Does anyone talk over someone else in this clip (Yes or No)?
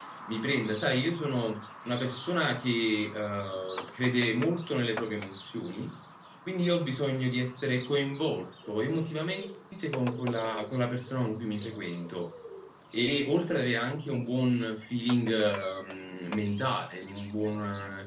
No